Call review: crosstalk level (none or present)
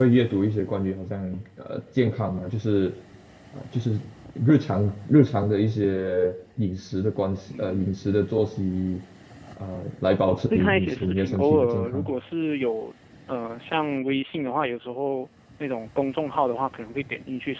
present